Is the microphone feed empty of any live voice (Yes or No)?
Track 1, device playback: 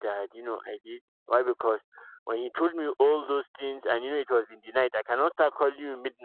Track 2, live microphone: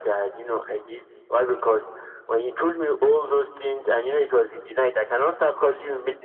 Yes